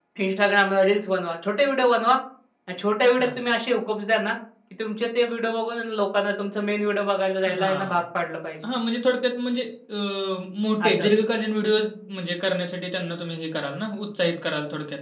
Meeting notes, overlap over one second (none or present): none